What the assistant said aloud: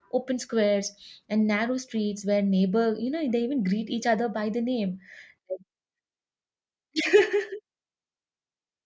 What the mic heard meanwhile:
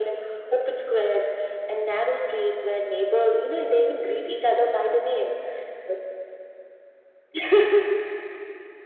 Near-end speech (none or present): none